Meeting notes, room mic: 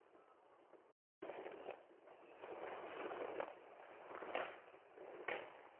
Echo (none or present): none